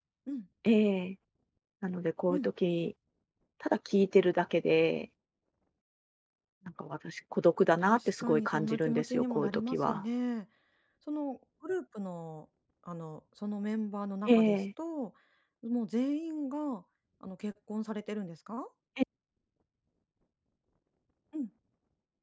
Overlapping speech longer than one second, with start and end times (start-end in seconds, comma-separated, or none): 7.8-10.0